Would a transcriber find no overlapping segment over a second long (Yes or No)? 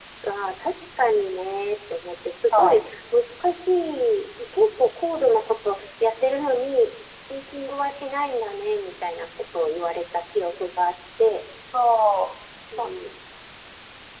Yes